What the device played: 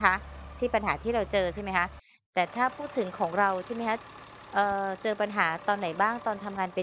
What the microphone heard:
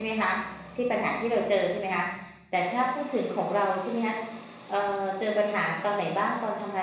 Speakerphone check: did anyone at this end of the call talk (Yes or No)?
No